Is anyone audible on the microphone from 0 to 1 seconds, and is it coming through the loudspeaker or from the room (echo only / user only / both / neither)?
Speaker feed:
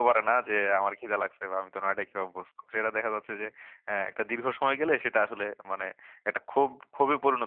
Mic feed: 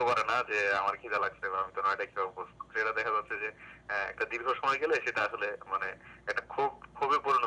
echo only